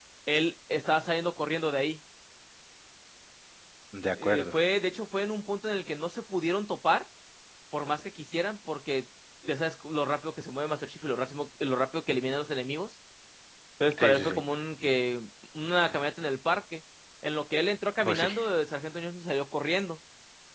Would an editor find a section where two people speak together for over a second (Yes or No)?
No